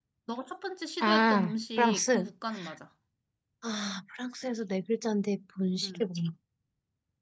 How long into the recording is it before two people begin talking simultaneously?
1.0 s

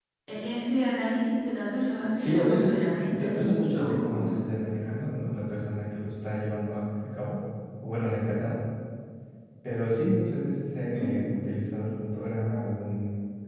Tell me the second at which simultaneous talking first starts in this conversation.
2.2 s

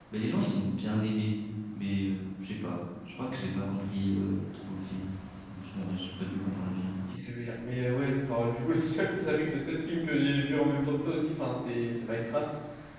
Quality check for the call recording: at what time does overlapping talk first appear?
none

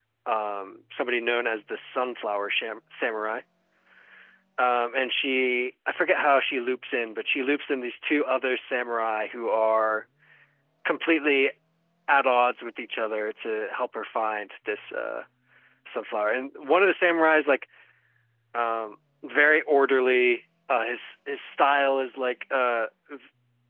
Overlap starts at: none

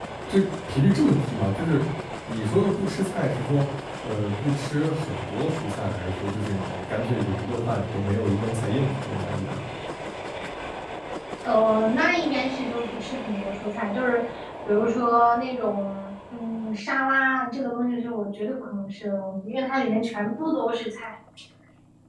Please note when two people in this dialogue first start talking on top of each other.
none

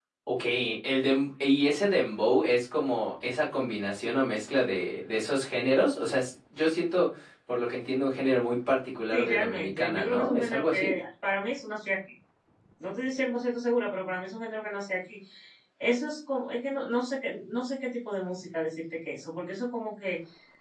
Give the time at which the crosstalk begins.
9.1 s

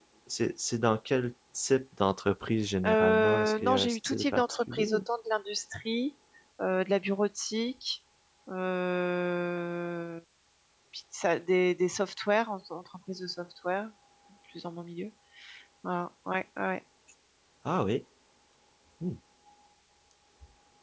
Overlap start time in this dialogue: 2.8 s

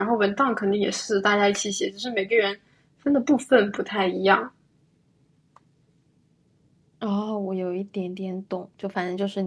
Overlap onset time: none

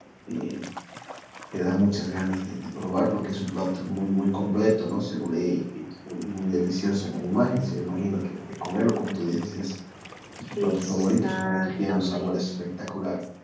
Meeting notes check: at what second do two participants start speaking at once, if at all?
10.6 s

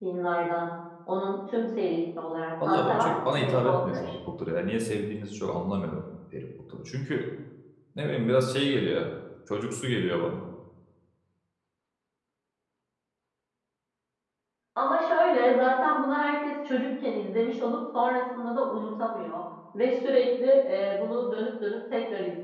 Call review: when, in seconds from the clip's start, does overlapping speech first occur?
2.6 s

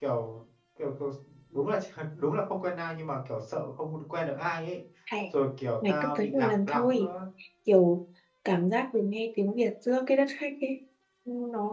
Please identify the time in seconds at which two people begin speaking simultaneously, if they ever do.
5.9 s

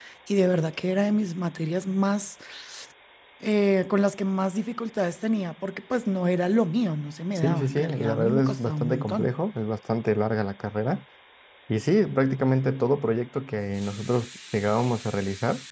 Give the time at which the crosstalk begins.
7.4 s

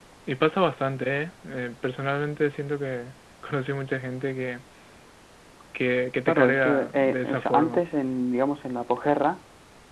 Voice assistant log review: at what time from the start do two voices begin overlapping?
6.3 s

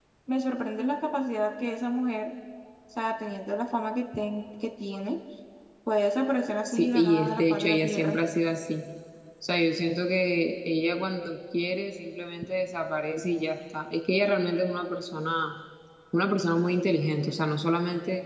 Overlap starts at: 6.7 s

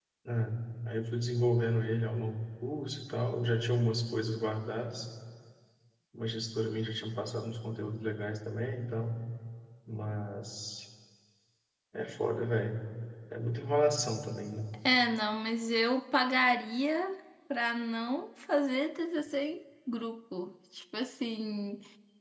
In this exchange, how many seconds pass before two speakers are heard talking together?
none

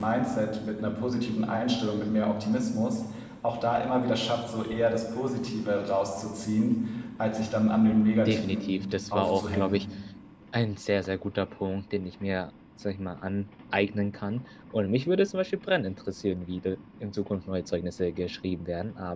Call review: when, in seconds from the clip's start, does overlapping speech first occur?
8.2 s

